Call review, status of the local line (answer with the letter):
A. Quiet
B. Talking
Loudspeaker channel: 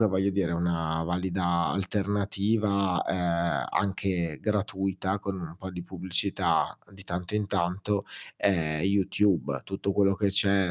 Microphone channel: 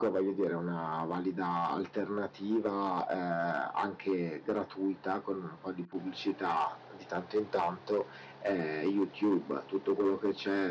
A